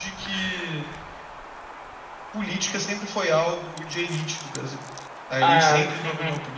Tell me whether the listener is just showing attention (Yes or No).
Yes